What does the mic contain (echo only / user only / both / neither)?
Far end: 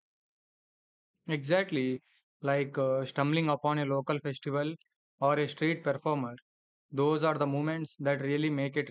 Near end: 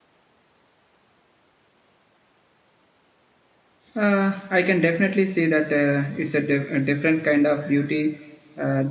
user only